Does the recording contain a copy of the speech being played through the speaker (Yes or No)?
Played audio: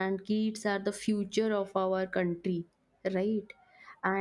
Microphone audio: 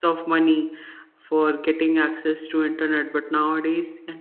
No